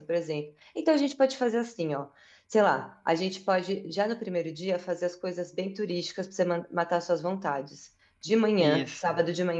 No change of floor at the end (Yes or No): Yes